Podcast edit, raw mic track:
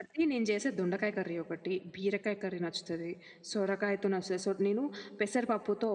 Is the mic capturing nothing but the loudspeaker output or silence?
No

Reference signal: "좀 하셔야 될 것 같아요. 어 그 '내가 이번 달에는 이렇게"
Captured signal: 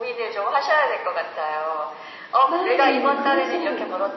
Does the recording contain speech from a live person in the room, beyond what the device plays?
Yes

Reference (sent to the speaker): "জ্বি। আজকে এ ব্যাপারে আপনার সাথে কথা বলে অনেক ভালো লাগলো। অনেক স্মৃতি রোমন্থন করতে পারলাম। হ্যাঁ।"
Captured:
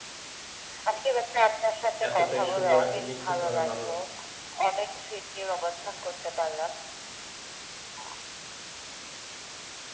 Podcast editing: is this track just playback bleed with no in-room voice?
No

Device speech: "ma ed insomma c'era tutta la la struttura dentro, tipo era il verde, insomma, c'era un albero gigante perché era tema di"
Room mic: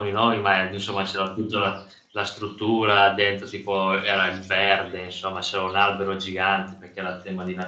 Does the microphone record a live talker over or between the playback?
No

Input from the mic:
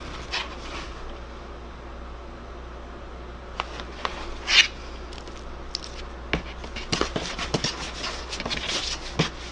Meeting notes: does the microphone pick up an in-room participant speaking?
No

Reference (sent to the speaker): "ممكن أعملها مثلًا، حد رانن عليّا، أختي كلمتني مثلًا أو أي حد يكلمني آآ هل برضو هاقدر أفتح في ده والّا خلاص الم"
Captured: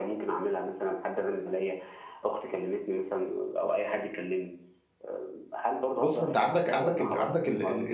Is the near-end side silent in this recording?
No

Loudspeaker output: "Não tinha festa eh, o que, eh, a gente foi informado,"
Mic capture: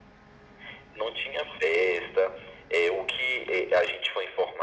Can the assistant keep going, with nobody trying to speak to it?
Yes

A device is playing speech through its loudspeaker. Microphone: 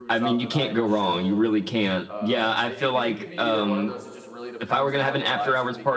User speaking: Yes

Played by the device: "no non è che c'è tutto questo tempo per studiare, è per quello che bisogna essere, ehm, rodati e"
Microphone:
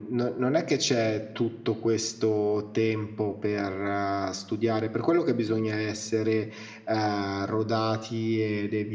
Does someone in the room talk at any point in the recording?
No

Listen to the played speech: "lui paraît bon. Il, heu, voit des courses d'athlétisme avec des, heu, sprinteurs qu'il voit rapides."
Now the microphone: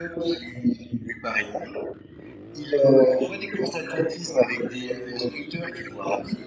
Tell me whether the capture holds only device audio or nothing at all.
Yes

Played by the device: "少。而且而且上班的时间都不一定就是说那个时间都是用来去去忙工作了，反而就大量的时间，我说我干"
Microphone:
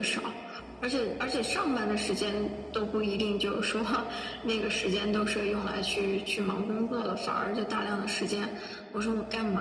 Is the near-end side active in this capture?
No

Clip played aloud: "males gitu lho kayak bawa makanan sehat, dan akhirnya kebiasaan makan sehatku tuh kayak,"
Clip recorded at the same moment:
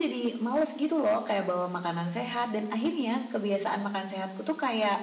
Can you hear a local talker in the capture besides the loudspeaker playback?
No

